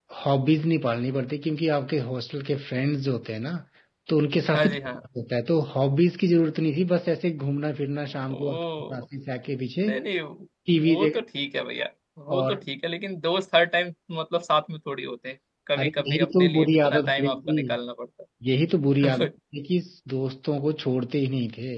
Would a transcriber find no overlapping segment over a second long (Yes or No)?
No